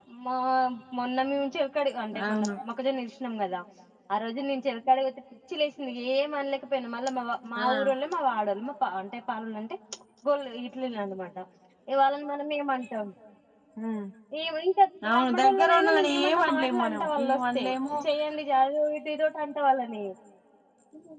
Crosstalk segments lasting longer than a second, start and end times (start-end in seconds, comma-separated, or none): 15.1-17.6